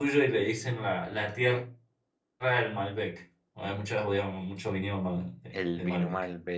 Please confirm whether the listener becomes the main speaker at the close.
Yes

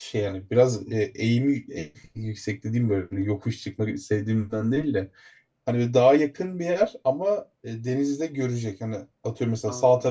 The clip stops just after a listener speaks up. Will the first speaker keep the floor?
Yes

